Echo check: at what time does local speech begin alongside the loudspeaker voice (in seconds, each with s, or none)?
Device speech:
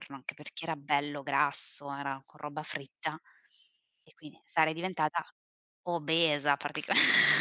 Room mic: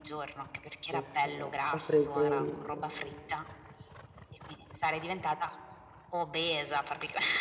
0.9 s